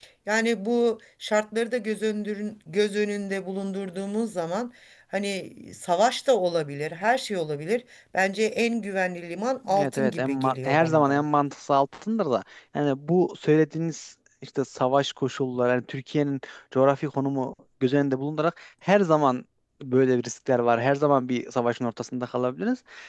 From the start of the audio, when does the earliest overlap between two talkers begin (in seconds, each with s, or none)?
9.7 s